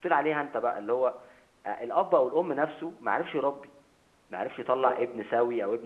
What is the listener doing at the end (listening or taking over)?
listening